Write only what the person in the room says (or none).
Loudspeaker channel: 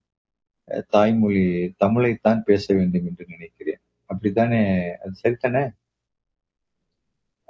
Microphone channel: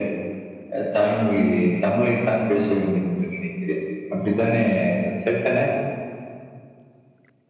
none